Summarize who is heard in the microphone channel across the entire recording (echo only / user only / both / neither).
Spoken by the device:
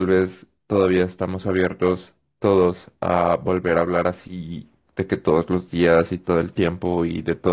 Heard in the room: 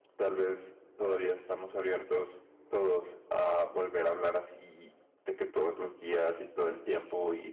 echo only